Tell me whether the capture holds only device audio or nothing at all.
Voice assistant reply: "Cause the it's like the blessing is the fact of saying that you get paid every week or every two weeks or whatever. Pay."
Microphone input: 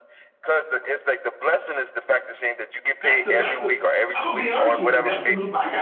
No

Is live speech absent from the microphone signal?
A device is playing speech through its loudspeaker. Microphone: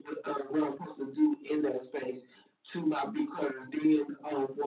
Yes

